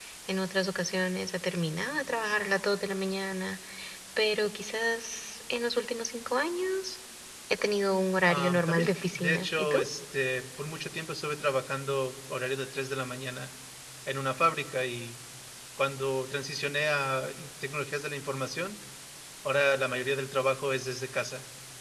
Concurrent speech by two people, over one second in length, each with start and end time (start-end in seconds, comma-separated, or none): 8.3-9.8